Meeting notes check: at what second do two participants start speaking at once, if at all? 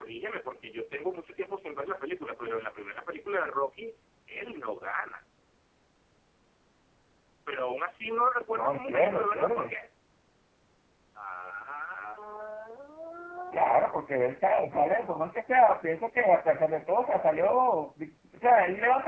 8.5 s

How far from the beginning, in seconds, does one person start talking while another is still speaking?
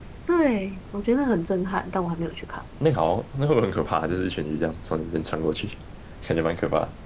none

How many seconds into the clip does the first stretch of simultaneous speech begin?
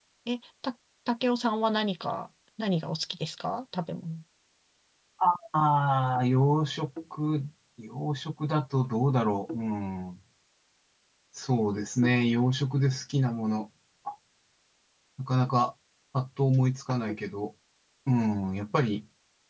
none

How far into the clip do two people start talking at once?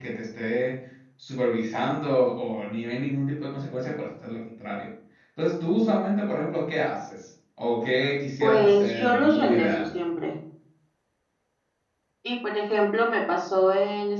8.4 s

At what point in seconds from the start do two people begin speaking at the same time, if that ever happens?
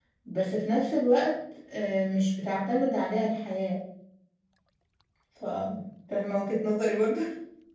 none

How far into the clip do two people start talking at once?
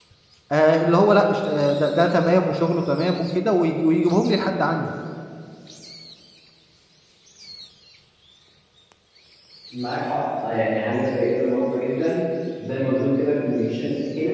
none

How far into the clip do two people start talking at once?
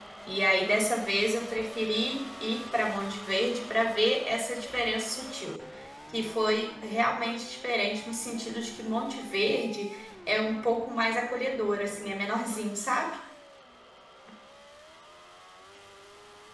none

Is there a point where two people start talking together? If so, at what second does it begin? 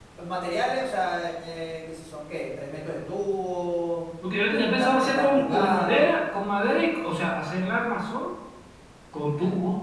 4.5 s

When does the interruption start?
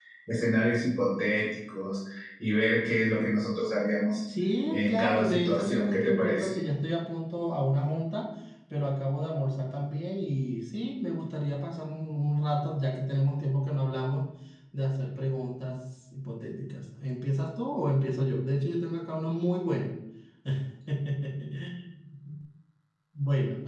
4.7 s

